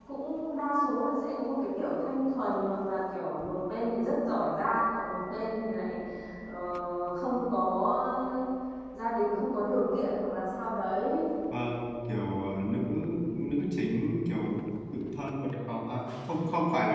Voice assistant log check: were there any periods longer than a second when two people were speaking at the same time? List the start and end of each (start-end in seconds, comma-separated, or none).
none